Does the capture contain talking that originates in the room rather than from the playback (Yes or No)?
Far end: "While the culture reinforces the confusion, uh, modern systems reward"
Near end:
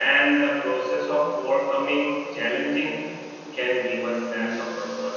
Yes